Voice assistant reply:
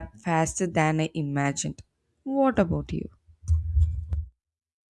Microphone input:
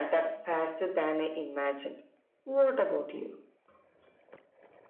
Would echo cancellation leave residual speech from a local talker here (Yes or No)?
No